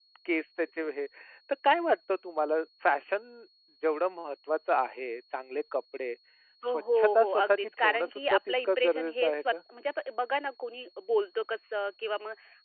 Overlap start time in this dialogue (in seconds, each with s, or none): 6.7 s